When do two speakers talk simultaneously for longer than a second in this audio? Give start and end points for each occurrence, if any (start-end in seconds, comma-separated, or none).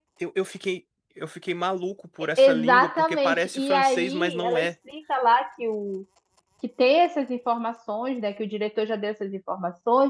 2.4-4.7